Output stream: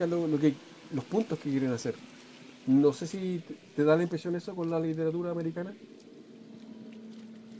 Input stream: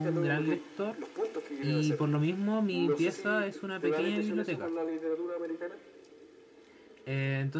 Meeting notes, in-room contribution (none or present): present